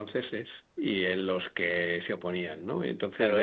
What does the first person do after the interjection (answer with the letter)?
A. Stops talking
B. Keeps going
A